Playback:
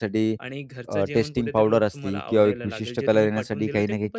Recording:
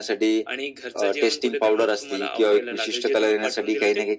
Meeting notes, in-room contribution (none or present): none